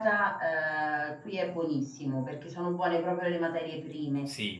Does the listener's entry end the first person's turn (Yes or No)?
No